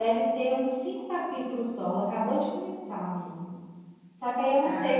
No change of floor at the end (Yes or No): Yes